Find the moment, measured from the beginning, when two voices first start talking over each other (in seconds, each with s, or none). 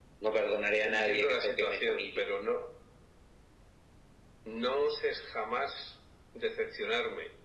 0.8 s